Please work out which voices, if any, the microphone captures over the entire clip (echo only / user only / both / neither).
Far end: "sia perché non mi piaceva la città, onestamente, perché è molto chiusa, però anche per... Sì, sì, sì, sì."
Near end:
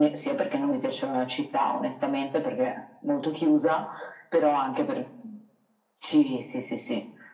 echo only